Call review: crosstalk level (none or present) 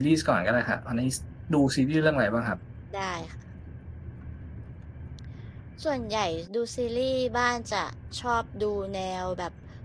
none